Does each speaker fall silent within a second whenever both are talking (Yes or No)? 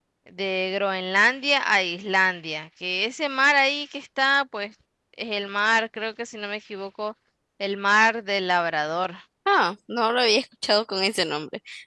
Yes